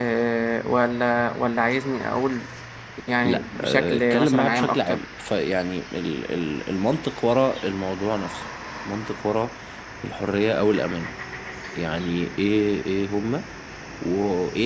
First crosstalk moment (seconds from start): 3 s

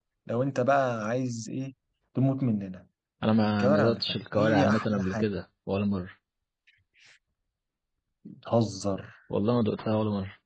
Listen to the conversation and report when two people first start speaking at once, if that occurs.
4 s

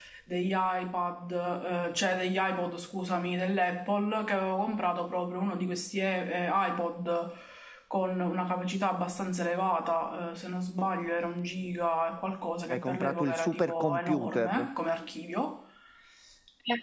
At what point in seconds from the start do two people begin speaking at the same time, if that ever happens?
13 s

